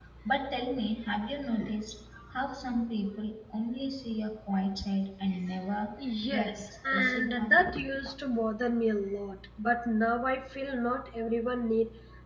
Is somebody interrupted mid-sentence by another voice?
Yes, from 6.3 s

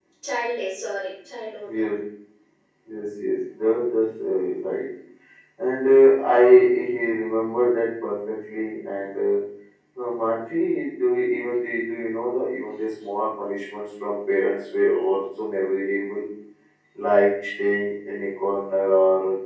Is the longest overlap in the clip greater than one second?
No

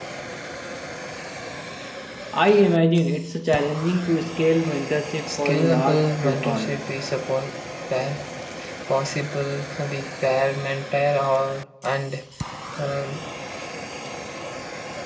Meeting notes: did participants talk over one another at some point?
Yes, from 5.3 s

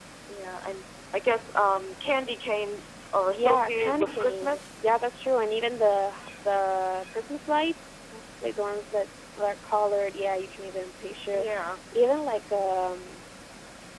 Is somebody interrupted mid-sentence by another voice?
Yes, from 3.3 s

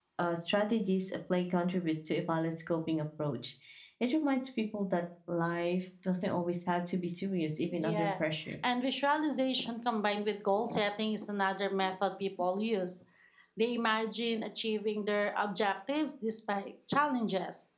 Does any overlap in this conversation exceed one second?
No

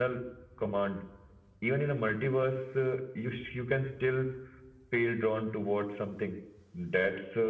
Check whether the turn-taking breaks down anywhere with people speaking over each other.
No

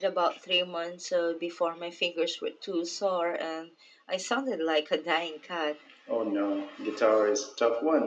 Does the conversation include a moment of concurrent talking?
No

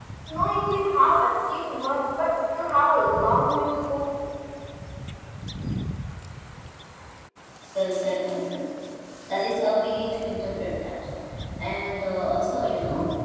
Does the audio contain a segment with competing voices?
No

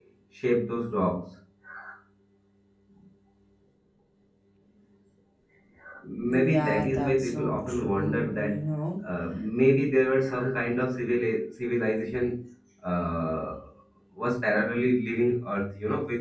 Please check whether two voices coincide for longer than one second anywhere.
Yes, from 6.3 s

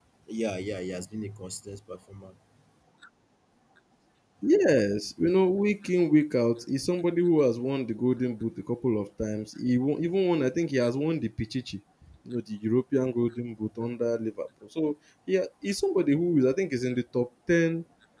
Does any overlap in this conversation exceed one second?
No

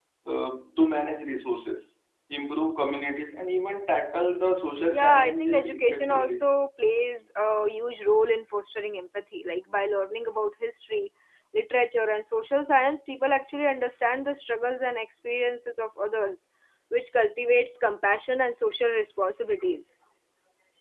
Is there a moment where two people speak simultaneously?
Yes, from 4.9 s

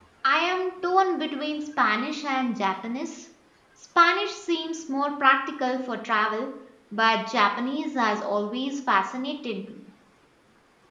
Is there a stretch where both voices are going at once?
No

